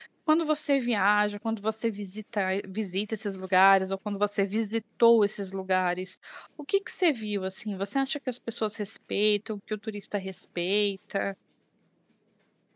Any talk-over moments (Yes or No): No